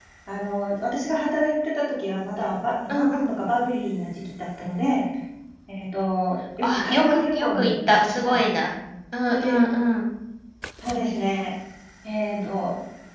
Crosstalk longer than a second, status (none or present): present